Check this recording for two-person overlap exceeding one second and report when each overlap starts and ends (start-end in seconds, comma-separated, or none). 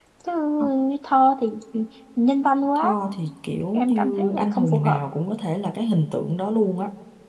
3.7-5.0